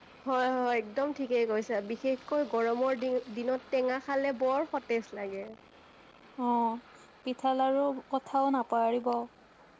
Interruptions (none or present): none